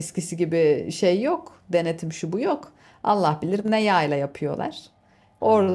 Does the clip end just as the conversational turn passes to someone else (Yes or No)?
No